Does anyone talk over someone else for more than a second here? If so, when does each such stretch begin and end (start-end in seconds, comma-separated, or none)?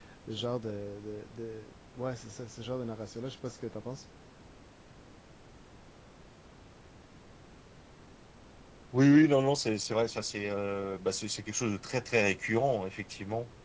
none